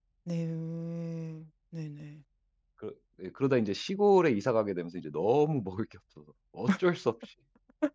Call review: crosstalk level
none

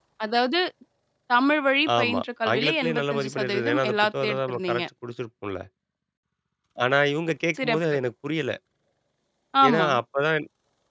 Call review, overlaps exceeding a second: present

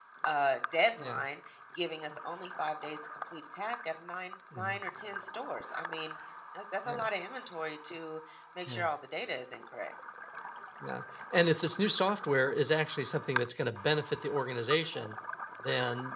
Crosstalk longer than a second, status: none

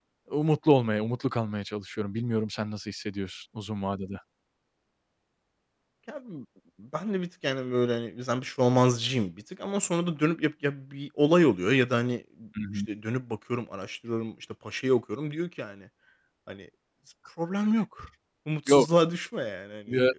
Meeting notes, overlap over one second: none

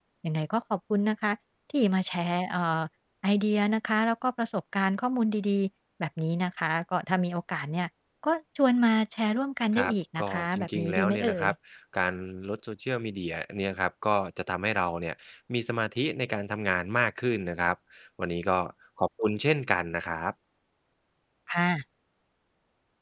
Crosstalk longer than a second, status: present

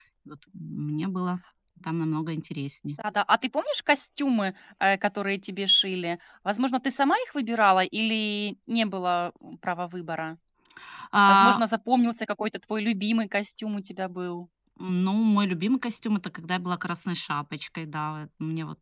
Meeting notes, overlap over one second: none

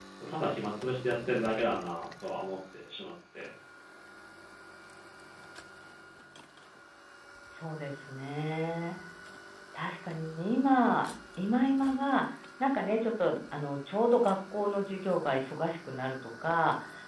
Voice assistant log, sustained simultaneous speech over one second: none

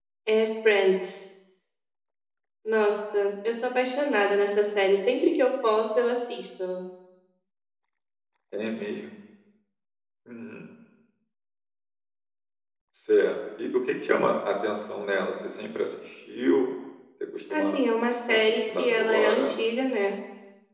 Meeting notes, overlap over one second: present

